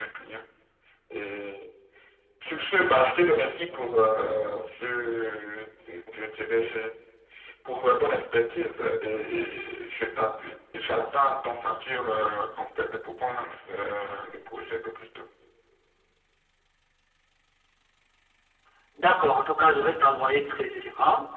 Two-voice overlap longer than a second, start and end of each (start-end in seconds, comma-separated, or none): none